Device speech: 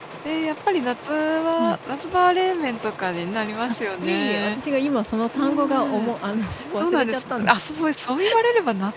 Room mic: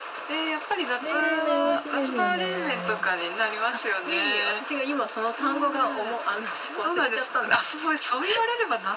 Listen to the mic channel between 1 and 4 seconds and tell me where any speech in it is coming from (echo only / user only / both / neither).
both